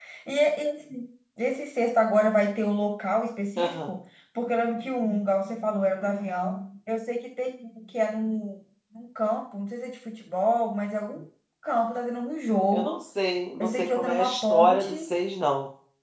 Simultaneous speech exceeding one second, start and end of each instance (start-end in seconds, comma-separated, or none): 13.6-15.1